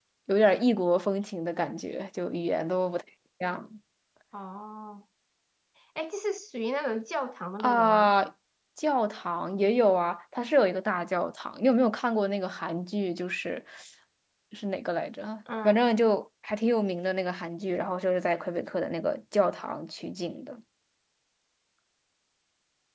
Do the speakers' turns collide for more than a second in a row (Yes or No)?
No